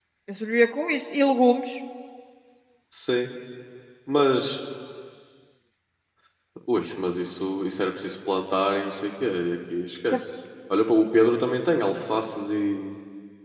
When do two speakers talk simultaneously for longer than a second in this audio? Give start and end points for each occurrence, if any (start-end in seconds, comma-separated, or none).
none